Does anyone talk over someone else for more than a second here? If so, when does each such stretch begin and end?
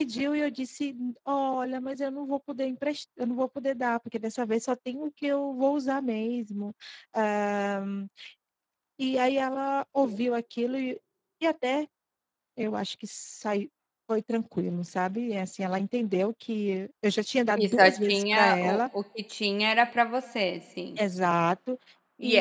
17.6-18.8

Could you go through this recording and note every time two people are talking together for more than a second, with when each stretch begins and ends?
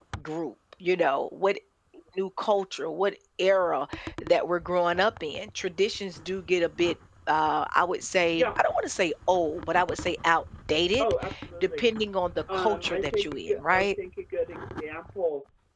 12.5-13.9

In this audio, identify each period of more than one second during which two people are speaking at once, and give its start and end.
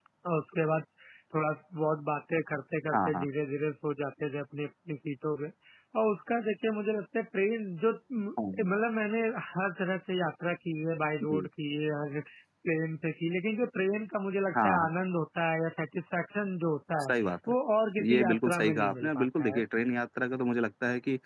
18.1-19.6

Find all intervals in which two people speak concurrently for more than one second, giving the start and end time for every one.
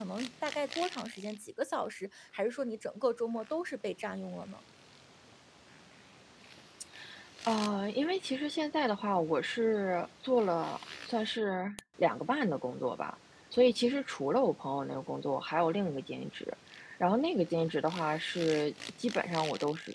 none

